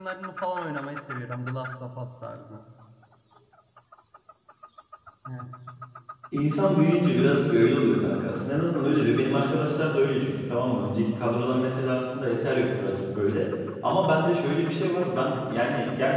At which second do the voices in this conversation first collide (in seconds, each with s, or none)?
none